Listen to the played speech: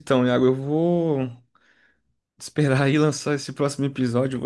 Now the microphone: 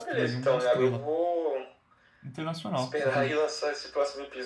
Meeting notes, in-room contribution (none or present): present